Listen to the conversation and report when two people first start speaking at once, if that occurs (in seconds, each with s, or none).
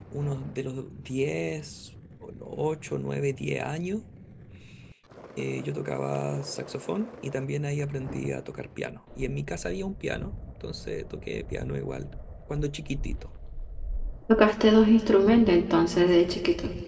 none